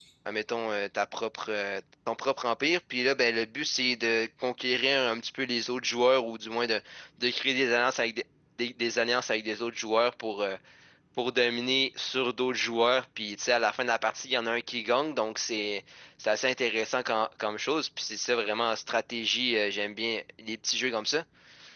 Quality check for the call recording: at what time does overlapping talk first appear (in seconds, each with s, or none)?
none